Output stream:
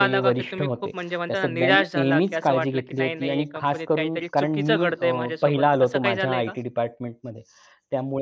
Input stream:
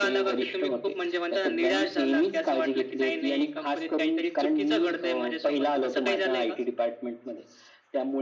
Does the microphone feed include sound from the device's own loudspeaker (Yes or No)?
Yes